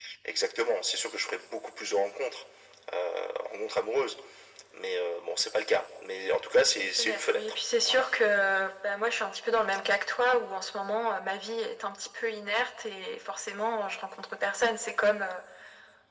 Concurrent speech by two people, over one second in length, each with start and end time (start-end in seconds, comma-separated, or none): 6.8-8.0